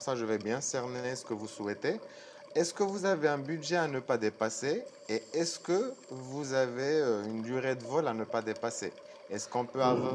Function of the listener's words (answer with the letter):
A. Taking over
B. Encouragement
B